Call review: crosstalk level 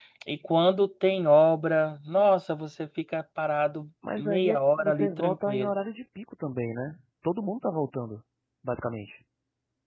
present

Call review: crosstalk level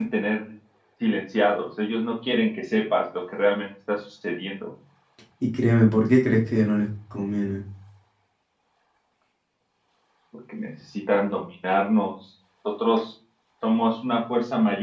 none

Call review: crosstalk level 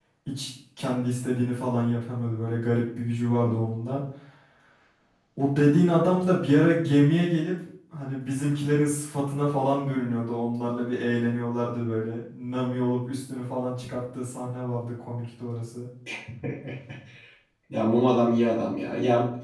none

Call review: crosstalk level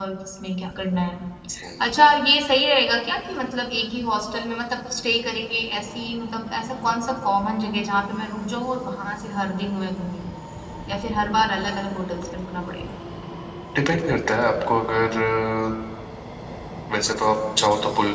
none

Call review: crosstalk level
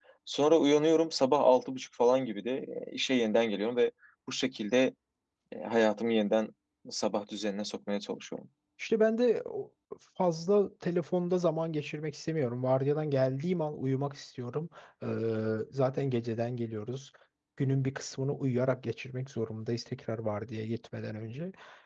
none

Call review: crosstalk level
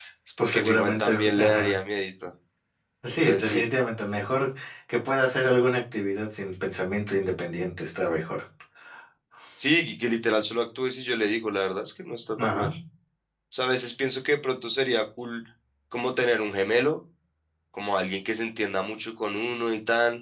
present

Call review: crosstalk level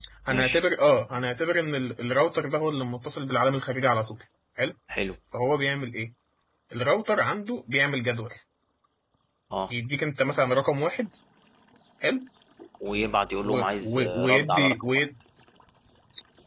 present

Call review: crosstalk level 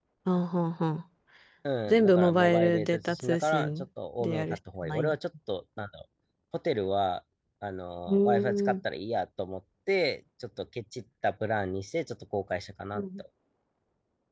present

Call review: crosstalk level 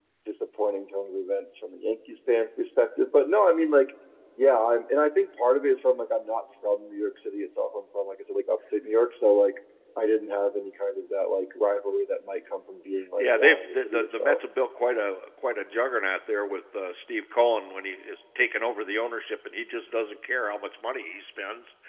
present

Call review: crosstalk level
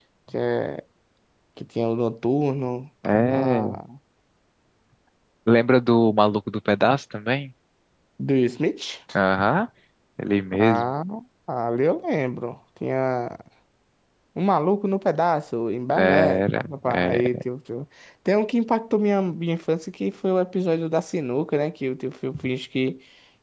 present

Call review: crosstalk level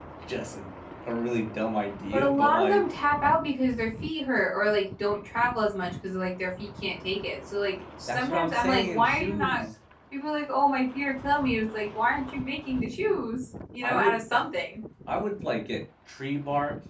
present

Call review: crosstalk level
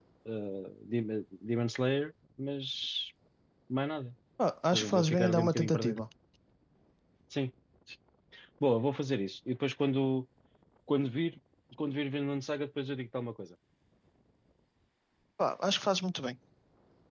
present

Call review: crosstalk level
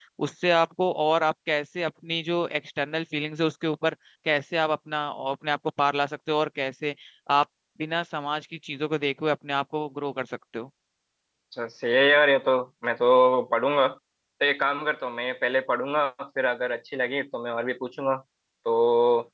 none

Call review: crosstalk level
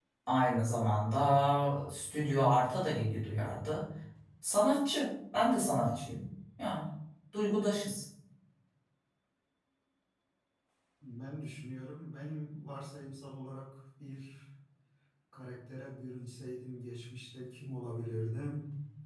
none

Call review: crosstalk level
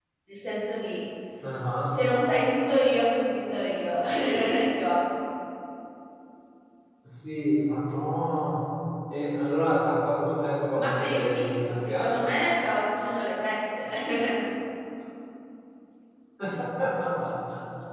present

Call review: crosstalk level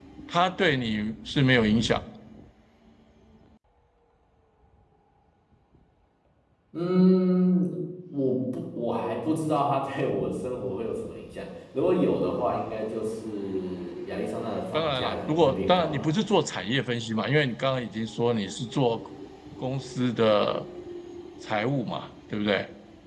present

